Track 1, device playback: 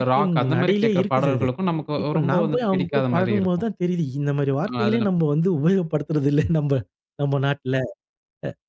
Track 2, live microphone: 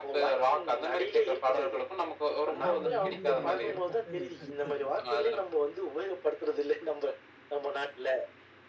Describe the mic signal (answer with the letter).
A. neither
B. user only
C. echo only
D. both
D